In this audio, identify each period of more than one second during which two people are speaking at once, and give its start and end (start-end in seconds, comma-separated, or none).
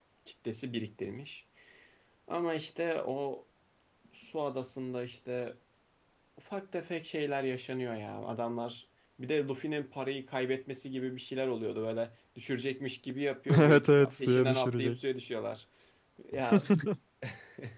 13.6-15.0